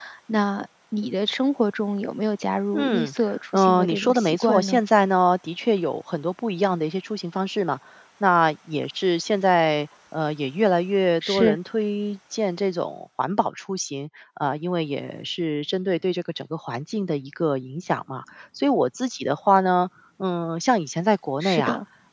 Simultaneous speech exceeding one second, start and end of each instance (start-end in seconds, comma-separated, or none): 3.5-4.8